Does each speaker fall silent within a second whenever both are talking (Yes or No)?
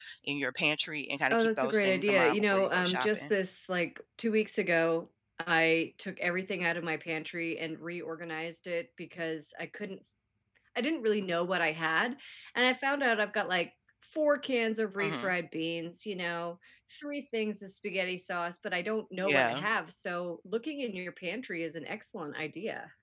No